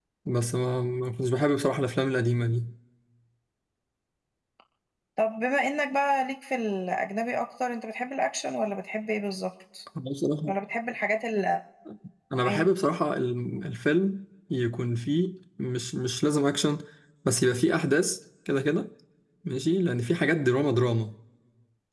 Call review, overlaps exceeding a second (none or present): none